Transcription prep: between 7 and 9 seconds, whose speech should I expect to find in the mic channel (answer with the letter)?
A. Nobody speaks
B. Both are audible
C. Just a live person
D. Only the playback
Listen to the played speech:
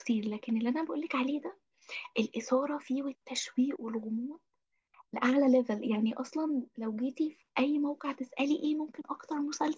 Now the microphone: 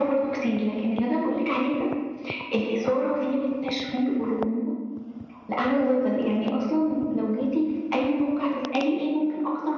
D